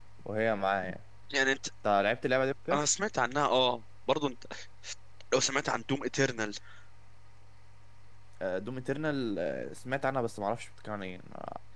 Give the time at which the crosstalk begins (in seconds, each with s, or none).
none